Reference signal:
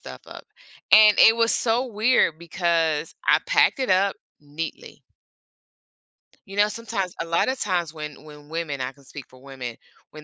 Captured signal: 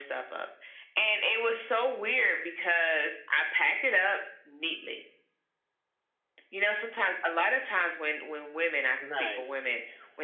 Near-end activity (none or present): present